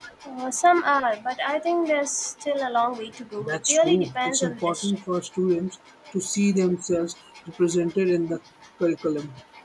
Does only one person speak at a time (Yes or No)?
No